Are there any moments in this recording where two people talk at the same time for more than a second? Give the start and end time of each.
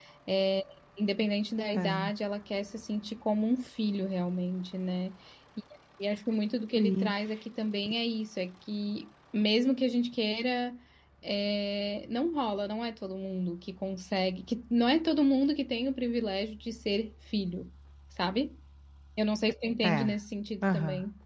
none

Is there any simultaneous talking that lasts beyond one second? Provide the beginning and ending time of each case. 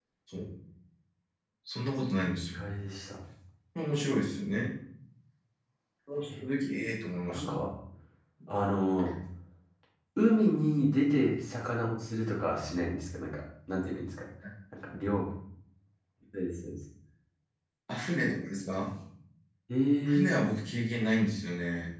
none

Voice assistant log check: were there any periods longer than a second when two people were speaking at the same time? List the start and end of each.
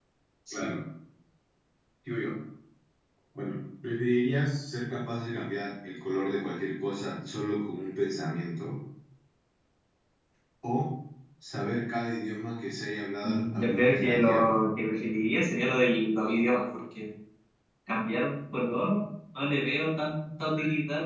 13.2-14.6

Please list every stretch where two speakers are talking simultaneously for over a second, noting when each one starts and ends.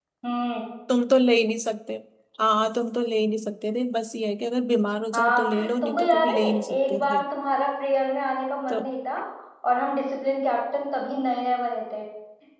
5.1-7.2

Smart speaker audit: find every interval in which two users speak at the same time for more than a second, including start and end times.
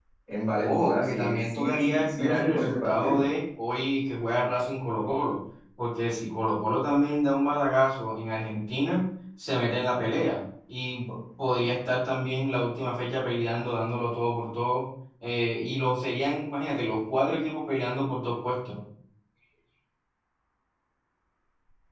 0.6-3.2

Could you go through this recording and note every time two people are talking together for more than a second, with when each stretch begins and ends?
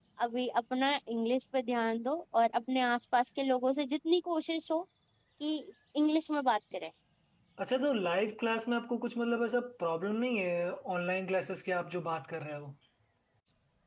none

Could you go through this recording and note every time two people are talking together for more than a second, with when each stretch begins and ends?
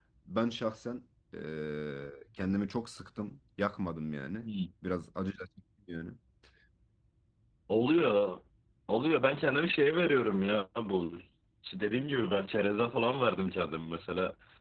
none

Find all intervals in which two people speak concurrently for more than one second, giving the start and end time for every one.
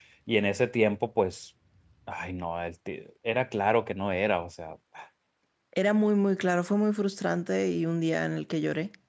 none

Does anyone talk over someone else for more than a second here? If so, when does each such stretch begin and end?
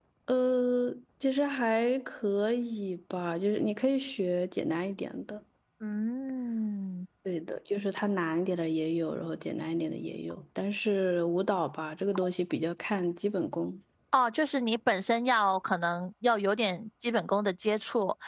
none

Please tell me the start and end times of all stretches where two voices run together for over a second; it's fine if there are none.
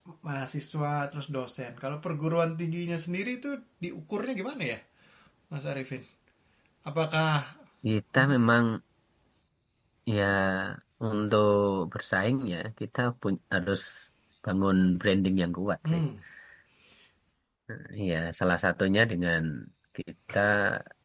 none

